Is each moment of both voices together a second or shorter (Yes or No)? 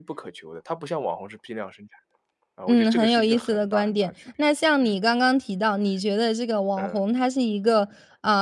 No